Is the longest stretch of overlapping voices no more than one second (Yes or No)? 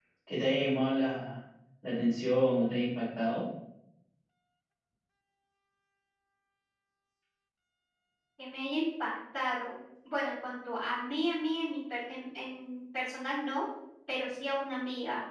Yes